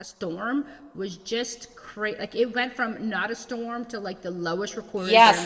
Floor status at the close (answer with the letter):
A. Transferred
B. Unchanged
A